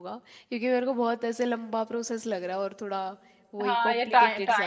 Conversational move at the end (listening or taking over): taking over